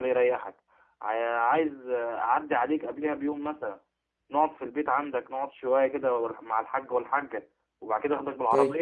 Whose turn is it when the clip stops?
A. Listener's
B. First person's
B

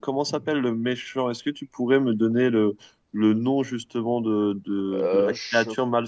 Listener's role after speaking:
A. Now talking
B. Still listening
B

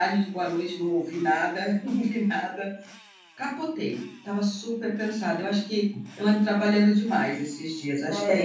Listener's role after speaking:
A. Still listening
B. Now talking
B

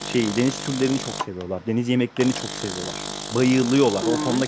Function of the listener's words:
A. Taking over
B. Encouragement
B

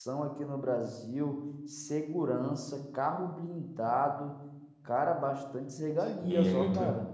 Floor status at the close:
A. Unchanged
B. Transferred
B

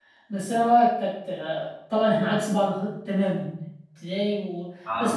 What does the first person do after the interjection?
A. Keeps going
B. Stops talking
A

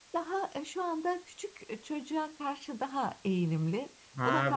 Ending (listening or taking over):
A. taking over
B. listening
A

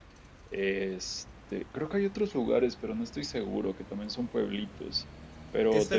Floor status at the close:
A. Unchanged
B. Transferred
B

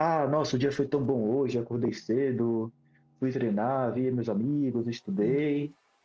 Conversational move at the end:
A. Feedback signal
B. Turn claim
A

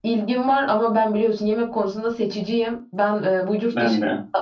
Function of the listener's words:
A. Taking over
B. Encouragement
B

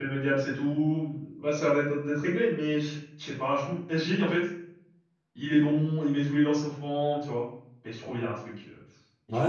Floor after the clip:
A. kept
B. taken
B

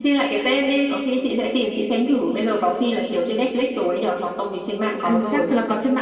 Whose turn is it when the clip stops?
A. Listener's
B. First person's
A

